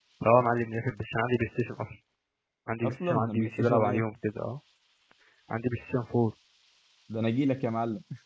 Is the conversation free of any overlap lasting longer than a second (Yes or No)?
No